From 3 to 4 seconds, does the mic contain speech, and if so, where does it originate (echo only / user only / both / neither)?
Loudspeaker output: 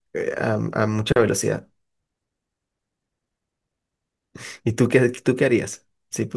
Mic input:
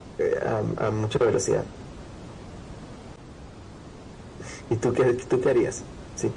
neither